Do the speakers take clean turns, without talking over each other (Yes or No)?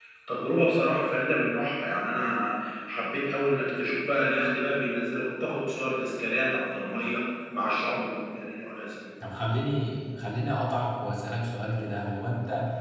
Yes